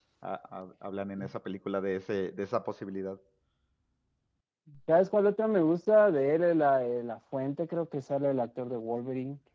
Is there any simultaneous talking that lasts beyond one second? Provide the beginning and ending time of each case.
none

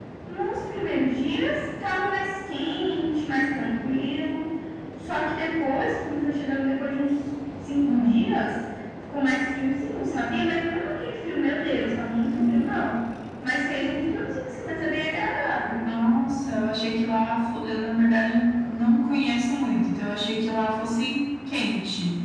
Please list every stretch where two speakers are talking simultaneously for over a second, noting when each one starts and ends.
none

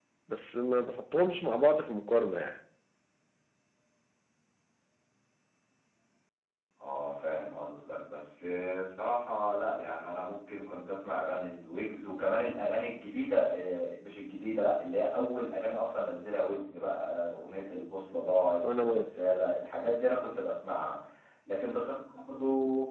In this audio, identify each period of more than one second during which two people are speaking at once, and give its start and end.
none

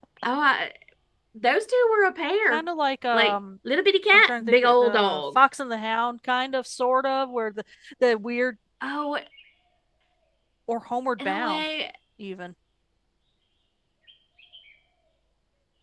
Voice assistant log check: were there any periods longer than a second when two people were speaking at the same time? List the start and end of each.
4.1-5.4

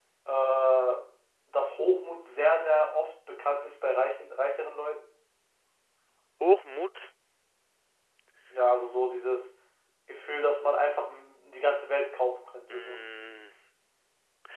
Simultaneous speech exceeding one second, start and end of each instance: none

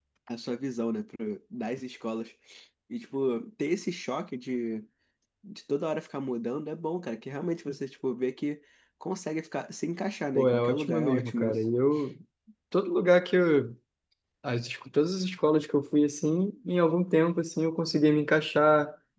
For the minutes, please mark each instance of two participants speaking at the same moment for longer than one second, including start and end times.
10.3-11.6

